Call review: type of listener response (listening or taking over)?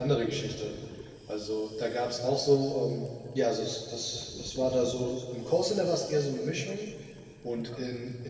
listening